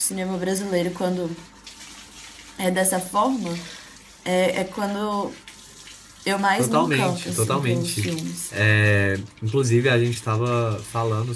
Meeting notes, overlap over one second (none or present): present